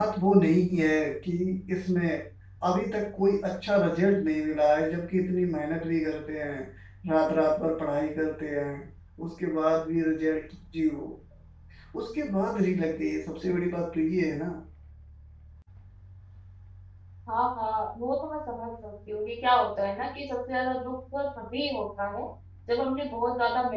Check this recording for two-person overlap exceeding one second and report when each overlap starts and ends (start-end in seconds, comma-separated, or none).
none